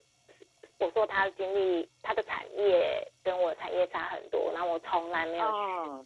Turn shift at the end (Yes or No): No